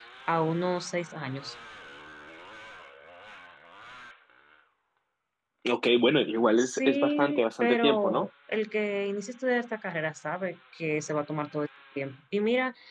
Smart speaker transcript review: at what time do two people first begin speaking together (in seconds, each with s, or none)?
6.6 s